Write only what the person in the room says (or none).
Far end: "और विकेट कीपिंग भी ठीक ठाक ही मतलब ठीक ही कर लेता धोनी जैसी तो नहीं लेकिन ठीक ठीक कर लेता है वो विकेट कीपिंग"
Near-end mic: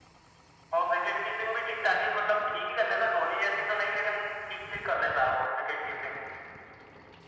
none